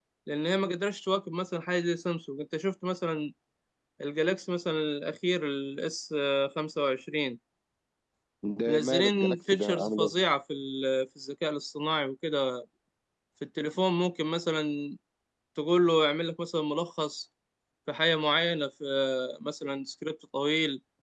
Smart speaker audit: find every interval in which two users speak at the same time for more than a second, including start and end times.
8.7-10.2

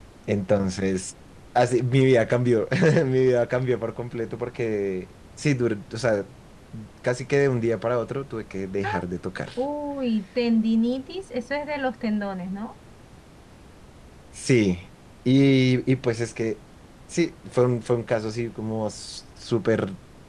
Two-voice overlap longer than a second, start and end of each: none

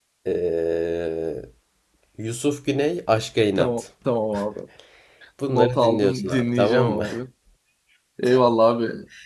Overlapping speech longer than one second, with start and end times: 5.5-7.0

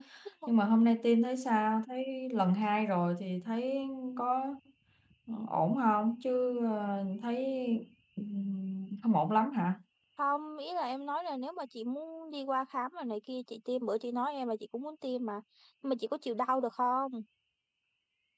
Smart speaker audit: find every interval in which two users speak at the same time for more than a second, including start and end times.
none

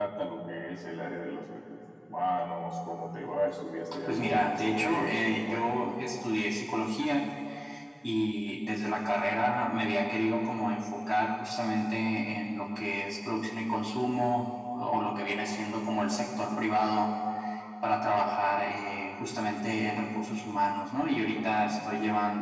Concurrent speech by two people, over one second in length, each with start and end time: 4.1-5.9

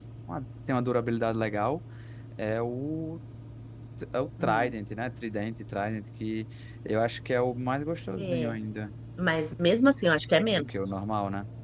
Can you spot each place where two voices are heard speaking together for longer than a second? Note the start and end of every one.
none

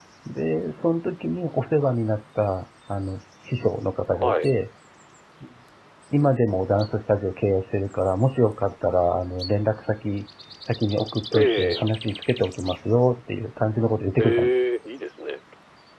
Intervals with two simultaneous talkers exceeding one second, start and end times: none

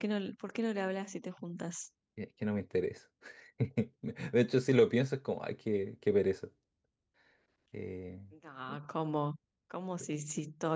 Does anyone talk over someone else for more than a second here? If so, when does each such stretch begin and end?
none

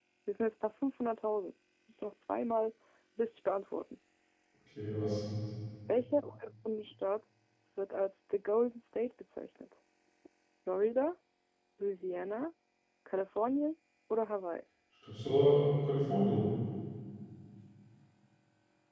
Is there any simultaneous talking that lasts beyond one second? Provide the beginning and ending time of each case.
none

